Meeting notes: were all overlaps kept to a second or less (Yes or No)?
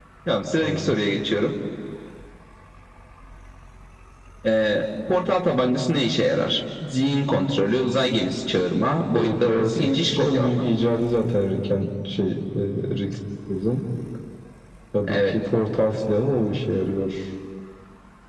No